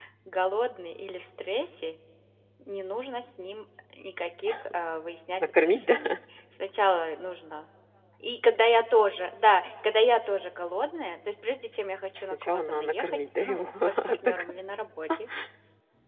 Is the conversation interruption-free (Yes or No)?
No